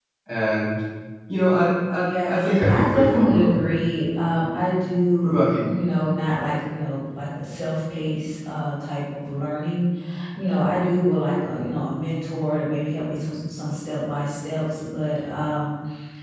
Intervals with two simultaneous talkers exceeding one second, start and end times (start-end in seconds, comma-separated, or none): 2.0-3.6